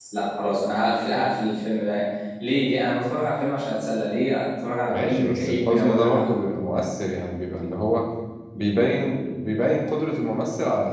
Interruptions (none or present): present